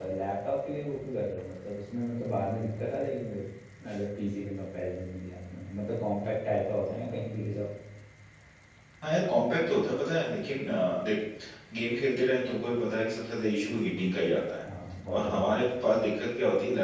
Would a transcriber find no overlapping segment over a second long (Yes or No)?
Yes